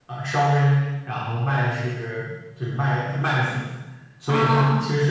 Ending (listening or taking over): listening